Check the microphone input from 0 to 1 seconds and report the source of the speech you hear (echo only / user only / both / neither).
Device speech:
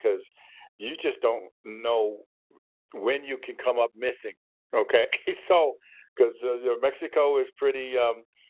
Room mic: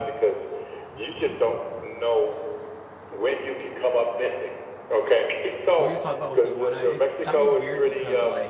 echo only